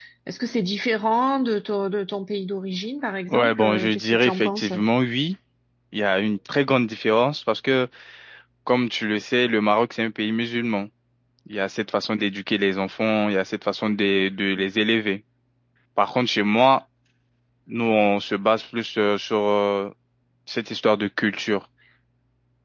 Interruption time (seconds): 3.3 s

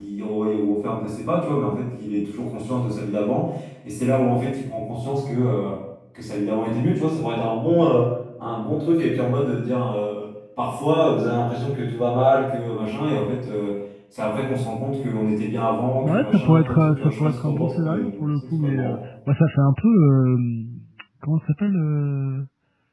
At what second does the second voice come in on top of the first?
16.0 s

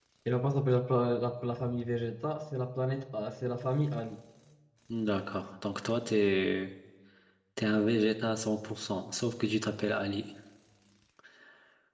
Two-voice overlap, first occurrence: none

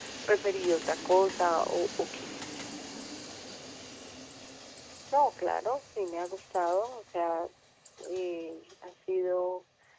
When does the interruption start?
none

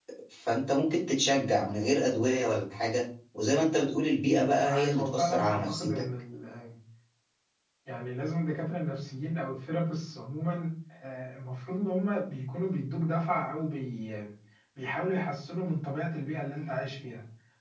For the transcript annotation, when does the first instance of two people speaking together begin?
4.2 s

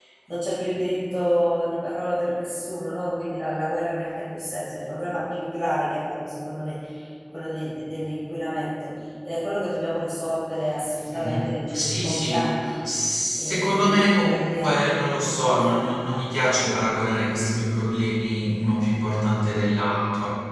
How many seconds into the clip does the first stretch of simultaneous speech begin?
11.1 s

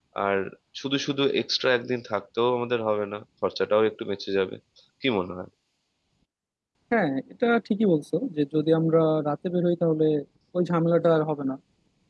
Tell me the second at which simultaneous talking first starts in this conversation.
none

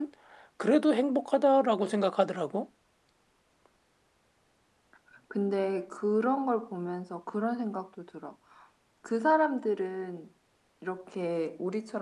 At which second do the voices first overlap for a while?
none

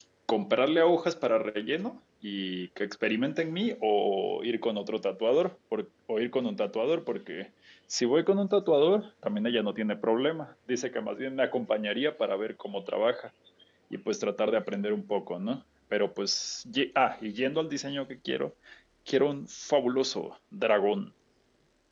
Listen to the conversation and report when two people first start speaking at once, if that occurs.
none

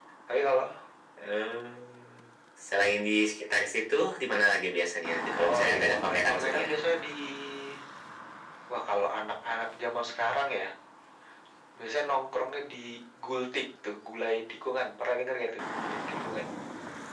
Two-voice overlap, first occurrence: 5.3 s

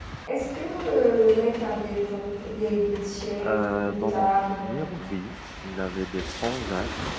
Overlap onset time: 3.4 s

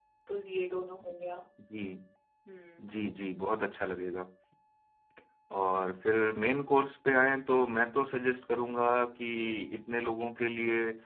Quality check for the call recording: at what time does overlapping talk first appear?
none

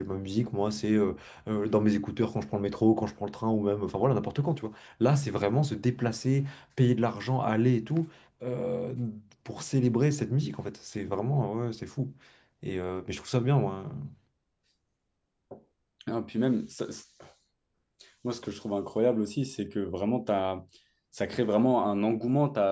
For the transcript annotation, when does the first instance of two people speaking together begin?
none

